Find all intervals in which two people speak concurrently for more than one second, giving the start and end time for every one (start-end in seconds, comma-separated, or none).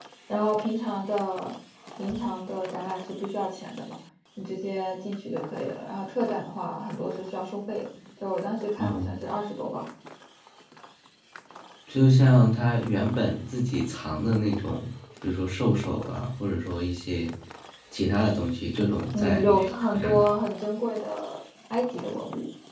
19.1-20.3